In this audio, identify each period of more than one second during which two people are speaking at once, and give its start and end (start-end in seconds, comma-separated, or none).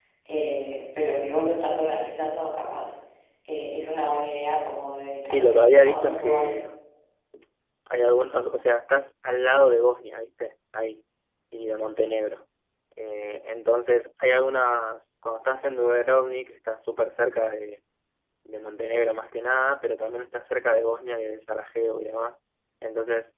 5.3-6.6